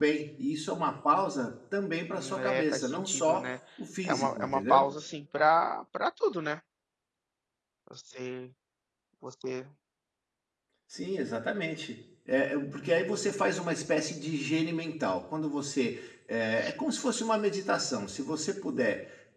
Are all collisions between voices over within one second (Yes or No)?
No